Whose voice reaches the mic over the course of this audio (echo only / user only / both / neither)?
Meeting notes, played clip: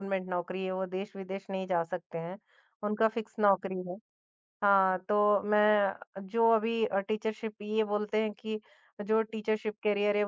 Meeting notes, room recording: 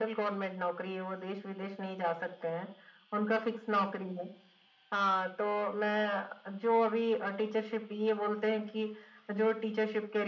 echo only